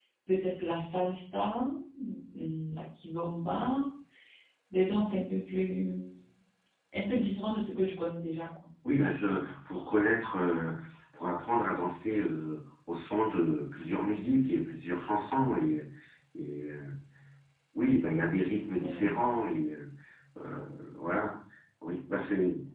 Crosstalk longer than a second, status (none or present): none